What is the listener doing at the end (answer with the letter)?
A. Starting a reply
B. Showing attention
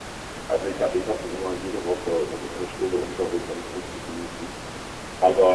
B